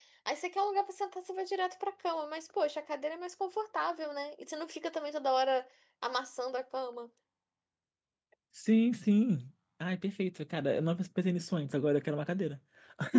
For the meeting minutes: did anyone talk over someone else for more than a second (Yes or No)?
No